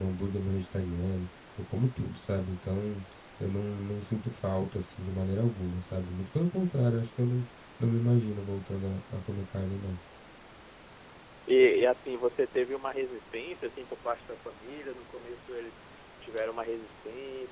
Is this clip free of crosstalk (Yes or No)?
Yes